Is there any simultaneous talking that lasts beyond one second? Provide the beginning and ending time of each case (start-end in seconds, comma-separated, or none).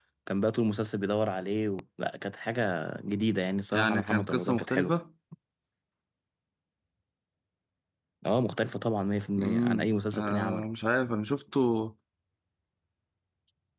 3.7-4.9, 9.4-10.6